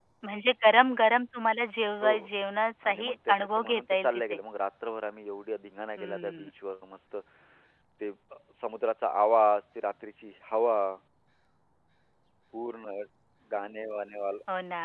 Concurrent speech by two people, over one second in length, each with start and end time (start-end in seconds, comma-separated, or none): 2.8-4.4